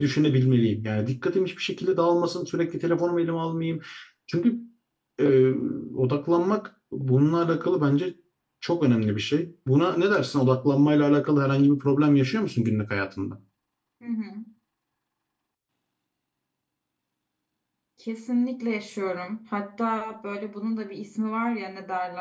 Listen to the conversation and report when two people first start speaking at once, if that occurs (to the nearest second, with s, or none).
none